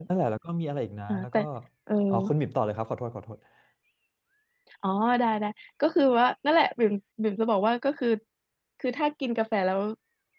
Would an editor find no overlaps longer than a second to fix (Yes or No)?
Yes